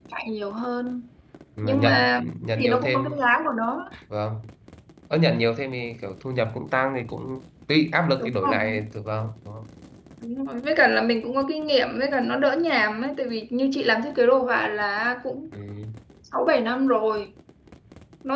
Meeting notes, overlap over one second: present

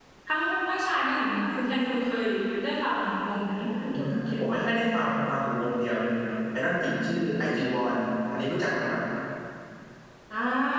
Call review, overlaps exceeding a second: none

